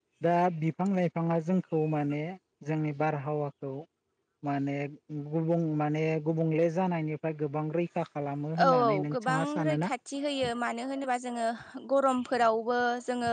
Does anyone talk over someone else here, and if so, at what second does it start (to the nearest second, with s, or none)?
9 s